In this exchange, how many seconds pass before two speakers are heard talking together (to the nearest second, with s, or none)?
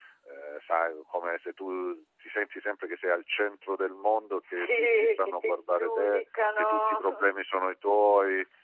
4 s